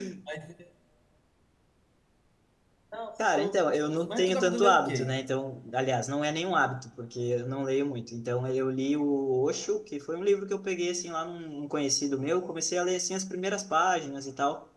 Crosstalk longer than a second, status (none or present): present